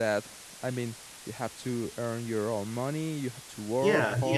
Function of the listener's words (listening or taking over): taking over